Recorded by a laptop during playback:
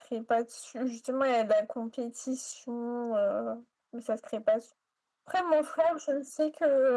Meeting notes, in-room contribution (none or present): none